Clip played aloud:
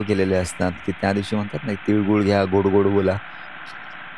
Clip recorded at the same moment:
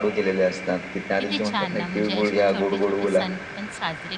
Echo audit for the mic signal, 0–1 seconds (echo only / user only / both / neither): echo only